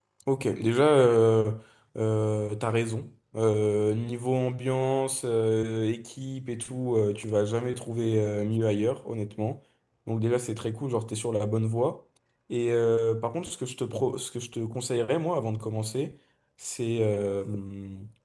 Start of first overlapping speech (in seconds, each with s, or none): none